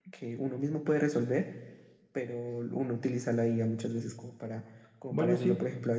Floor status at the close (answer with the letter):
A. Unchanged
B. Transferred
A